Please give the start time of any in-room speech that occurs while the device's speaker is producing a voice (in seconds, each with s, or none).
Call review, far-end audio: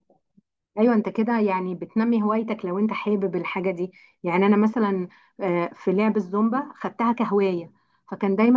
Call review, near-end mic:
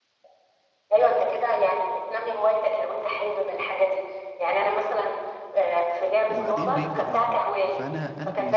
6.3 s